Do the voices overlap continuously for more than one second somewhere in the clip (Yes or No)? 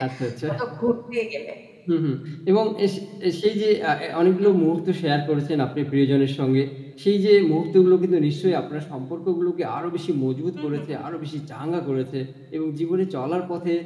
No